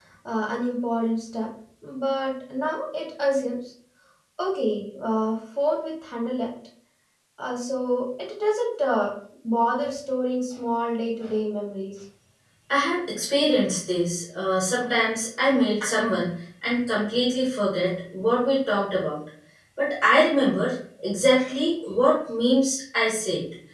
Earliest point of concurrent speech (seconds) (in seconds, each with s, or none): none